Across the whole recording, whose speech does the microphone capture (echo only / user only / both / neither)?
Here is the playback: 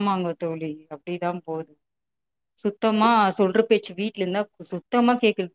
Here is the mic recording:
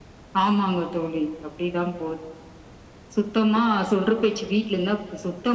echo only